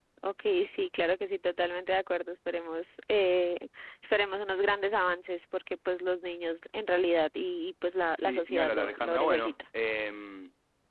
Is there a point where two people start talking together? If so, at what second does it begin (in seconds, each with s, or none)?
8.2 s